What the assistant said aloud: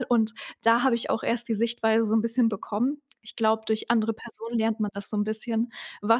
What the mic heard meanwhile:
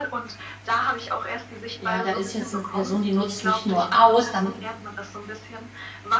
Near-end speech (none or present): present